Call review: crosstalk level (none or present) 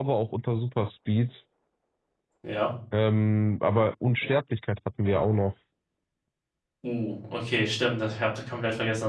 none